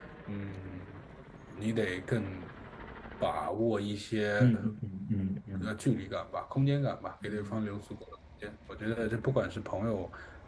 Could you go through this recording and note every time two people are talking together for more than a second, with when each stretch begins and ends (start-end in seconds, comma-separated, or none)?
none